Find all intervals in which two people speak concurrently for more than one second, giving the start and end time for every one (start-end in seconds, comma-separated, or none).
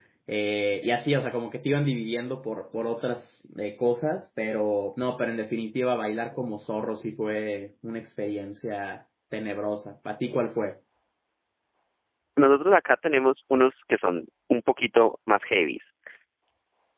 none